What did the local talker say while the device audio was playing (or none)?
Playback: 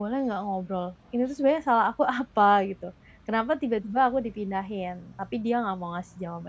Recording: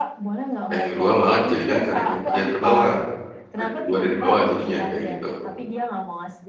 Ranking 2 malah dijadikan ke ranking 3 terbawah. Ranking 2 dari bawah jadinya, kayak gitu?